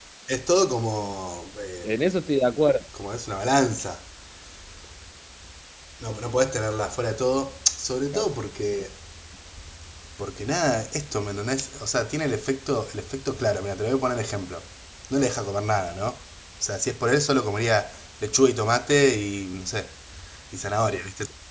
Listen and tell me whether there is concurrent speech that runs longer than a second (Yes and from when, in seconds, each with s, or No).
No